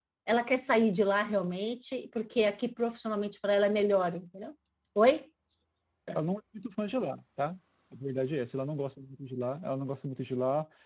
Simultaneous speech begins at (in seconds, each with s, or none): none